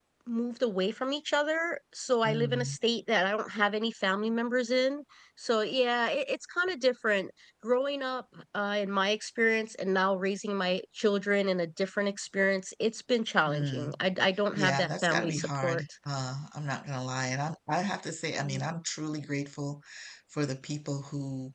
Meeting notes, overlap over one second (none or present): present